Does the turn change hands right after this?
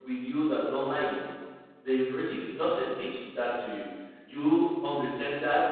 No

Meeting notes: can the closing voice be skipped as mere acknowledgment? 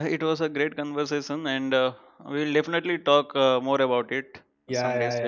No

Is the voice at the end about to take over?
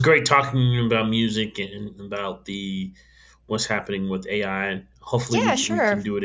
Yes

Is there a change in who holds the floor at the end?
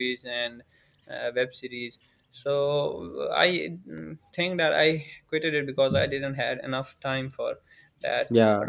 No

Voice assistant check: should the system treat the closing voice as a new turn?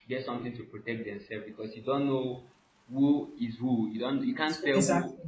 No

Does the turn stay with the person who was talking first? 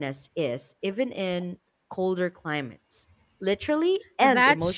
No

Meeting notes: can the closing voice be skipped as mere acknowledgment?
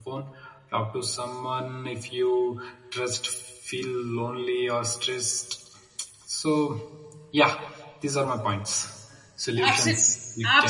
No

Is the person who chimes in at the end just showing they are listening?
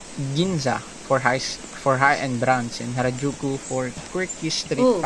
No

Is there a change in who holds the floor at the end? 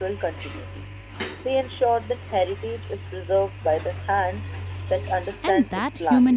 Yes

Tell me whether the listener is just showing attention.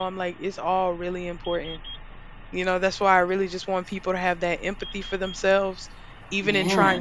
Yes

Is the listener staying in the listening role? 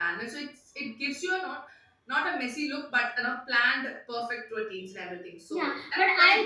No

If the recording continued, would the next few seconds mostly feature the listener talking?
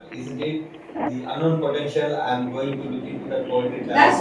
Yes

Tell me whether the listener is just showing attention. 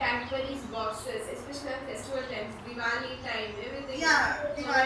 No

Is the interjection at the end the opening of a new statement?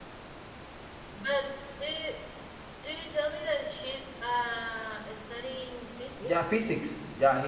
Yes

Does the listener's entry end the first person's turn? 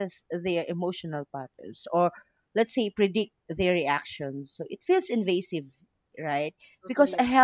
No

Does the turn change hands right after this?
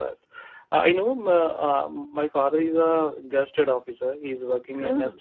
No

